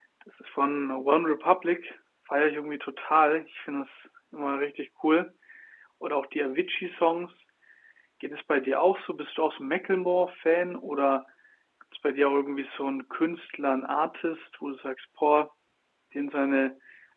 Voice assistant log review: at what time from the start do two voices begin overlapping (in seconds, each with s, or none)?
none